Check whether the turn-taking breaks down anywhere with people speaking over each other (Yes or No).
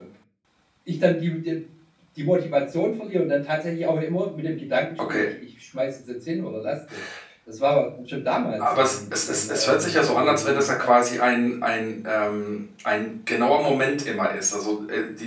Yes